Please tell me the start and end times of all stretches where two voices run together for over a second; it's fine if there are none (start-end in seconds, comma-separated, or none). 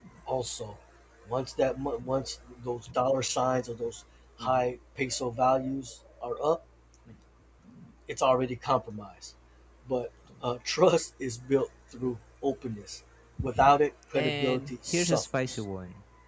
14.1-15.6